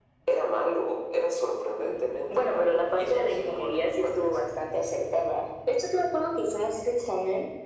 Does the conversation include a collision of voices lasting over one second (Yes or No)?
Yes